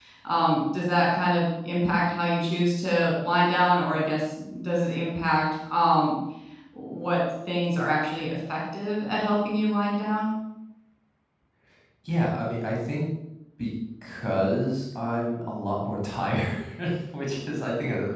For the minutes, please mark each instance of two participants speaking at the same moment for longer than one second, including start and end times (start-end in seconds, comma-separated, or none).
none